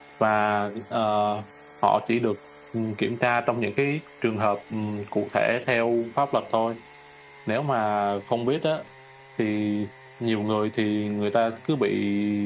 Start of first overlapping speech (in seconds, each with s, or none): none